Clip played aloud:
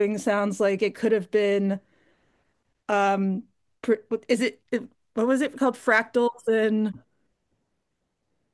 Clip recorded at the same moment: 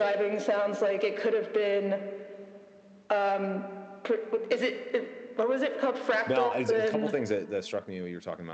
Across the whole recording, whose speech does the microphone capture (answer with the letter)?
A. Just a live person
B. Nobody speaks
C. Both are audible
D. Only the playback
C